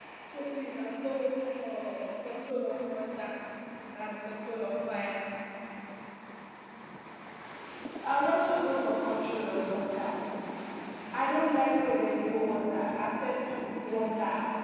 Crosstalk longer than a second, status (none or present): none